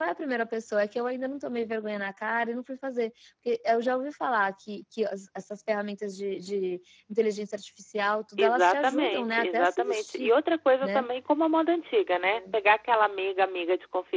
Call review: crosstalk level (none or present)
present